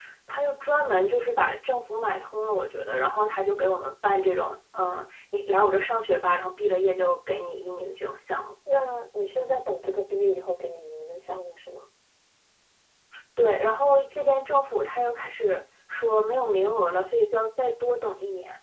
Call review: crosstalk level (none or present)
none